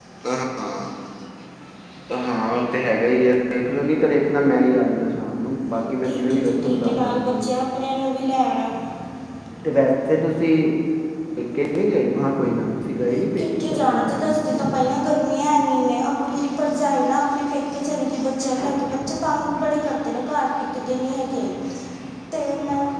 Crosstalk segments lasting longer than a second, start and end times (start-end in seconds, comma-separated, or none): 6.0-7.3, 13.4-14.8